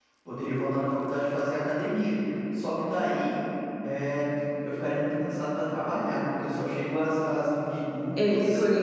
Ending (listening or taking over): taking over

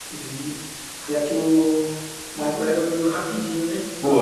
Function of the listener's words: taking over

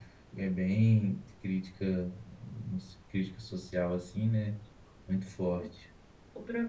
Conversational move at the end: taking over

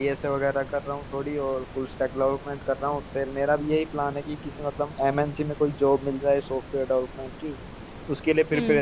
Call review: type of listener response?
listening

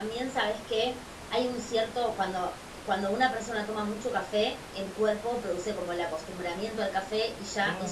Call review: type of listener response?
listening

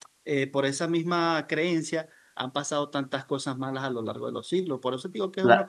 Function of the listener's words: taking over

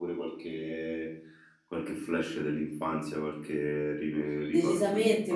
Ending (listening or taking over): taking over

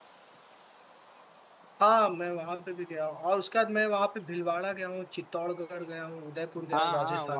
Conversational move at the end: taking over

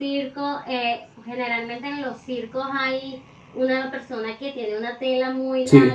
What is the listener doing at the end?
listening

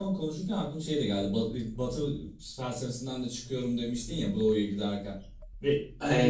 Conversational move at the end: taking over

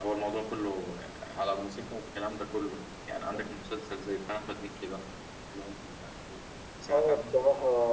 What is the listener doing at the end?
taking over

